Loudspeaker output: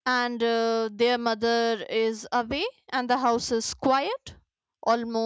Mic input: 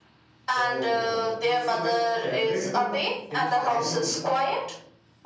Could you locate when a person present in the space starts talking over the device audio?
0.5 s

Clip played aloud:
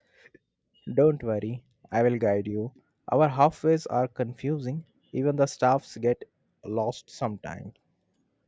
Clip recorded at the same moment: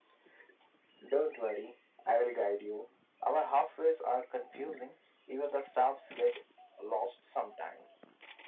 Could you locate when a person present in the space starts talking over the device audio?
none

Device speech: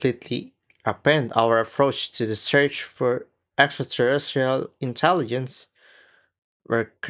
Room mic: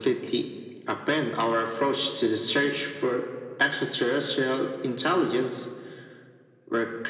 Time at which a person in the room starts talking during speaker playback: none

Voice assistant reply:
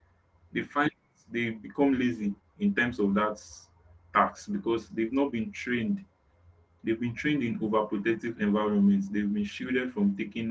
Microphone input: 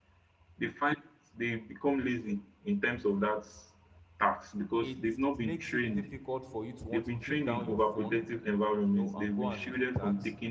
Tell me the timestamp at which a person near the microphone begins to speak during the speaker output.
4.8 s

